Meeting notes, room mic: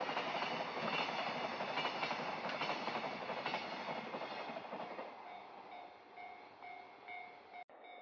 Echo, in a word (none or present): none